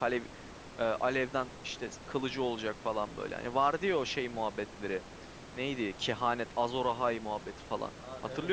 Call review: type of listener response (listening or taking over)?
taking over